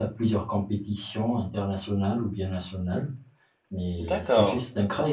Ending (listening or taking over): listening